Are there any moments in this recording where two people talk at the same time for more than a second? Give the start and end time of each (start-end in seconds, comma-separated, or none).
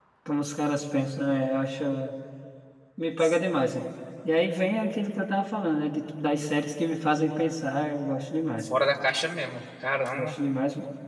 none